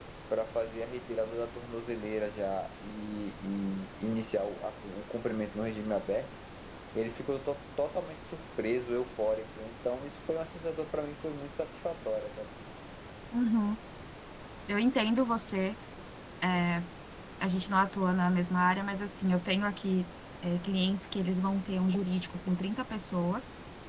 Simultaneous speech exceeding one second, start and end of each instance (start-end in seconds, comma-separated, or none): none